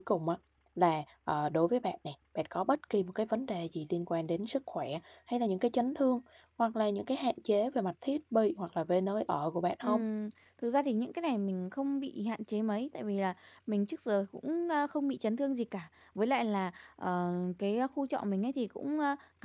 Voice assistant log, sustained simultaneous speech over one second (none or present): none